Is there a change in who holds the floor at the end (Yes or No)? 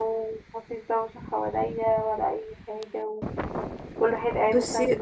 No